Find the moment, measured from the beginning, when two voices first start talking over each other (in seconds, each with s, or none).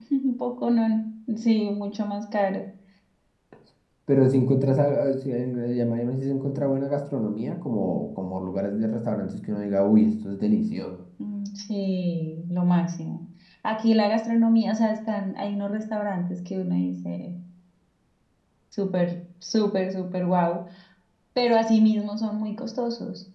none